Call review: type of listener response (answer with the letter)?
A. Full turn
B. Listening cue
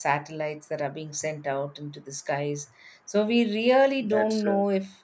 B